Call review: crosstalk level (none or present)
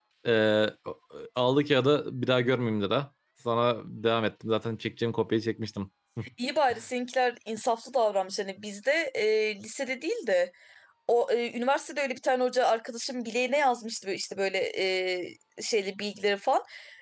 none